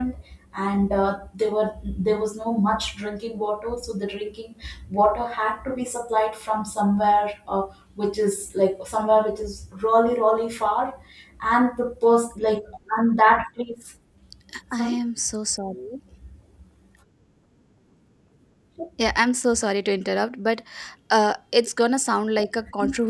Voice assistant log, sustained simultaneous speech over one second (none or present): none